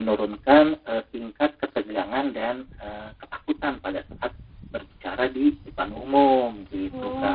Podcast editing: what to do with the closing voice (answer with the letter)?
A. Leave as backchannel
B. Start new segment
B